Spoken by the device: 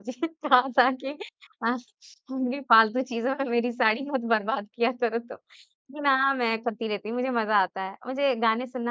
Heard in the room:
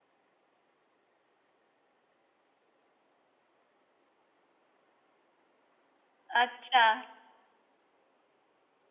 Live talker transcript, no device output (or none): अच्छा